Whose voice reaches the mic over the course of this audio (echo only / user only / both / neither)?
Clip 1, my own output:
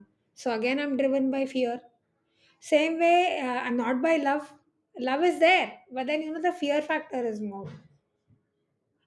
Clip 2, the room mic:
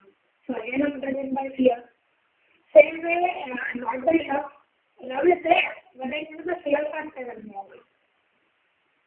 echo only